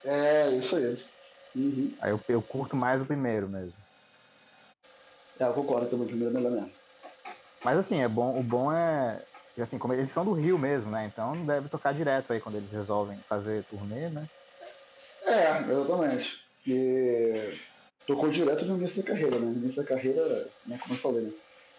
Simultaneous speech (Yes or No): No